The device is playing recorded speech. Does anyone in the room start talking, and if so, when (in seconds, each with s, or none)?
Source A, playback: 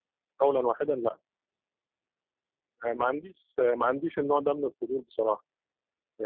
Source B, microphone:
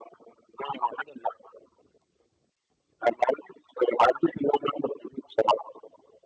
none